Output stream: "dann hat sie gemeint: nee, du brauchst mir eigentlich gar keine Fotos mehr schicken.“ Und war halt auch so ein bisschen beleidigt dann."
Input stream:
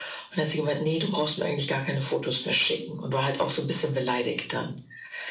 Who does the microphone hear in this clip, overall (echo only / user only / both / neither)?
echo only